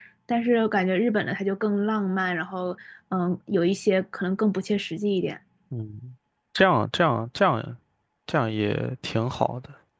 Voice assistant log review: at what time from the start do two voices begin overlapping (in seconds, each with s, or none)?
none